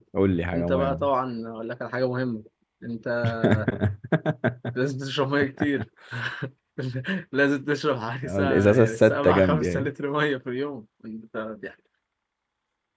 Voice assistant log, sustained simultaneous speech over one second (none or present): present